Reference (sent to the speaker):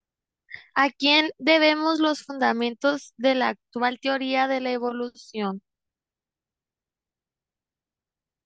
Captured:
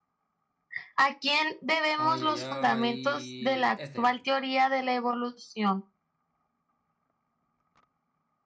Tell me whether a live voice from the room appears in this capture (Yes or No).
Yes